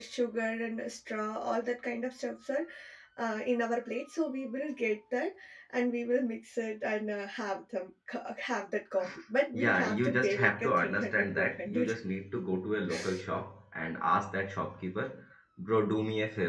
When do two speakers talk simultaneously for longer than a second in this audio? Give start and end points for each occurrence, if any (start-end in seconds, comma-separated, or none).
9.5-11.9